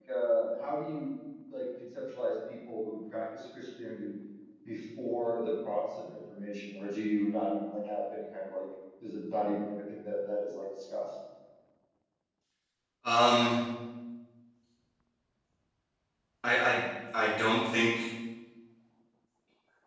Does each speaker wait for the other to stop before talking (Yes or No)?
Yes